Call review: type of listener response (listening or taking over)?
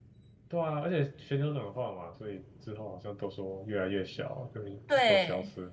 taking over